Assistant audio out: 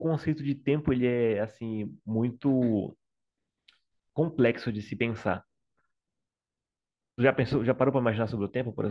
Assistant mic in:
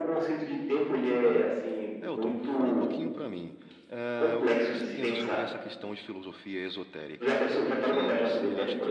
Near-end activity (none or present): present